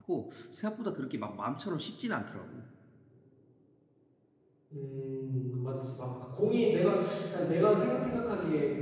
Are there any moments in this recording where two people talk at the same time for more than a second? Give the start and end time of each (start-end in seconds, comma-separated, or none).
none